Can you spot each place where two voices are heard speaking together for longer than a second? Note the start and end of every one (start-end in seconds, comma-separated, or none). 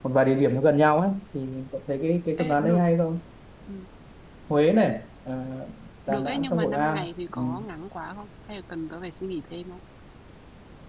6.1-7.4